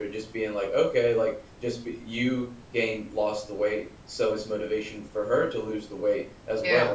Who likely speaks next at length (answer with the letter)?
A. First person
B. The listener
A